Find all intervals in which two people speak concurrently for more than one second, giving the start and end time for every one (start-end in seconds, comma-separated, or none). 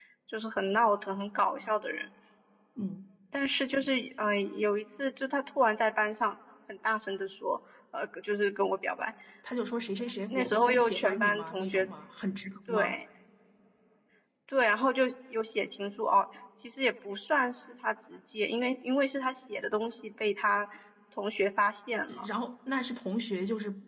10.3-11.9